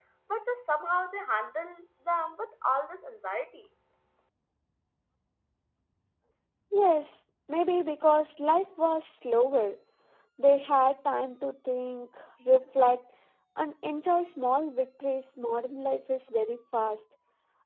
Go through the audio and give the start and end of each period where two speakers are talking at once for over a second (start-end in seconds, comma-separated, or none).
none